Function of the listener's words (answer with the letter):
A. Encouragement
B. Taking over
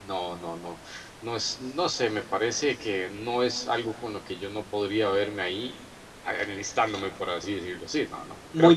A